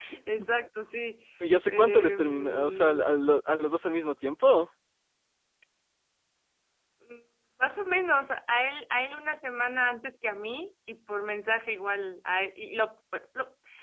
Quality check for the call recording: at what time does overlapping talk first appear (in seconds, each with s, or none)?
1.7 s